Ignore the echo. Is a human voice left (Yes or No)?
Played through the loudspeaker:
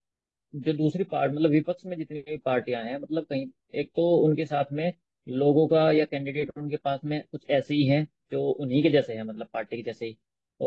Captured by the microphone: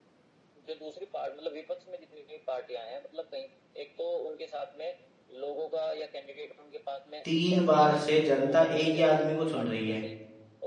Yes